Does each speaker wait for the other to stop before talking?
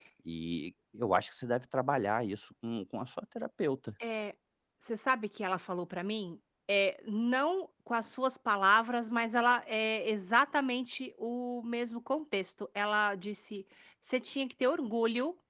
Yes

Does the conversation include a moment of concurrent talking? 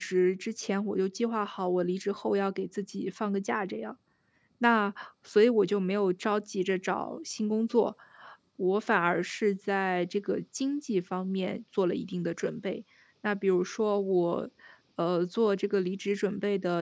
No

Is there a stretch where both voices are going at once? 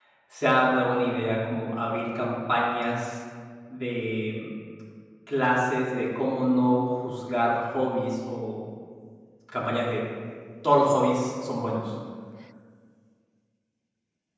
No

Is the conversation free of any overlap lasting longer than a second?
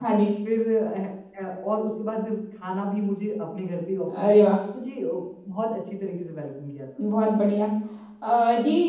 Yes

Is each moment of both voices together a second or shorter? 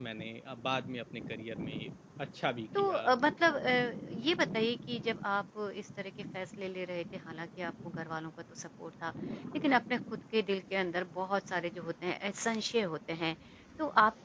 Yes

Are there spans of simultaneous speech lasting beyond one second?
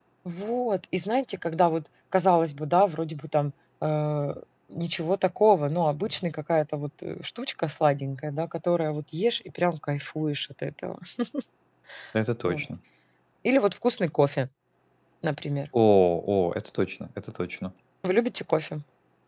No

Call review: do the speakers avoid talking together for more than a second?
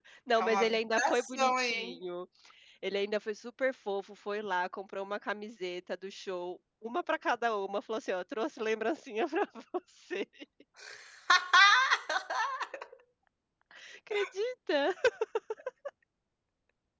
No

